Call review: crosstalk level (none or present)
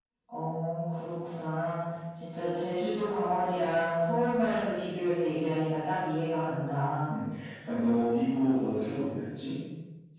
none